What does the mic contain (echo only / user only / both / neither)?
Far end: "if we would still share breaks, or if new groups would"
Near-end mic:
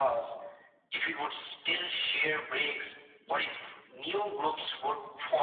echo only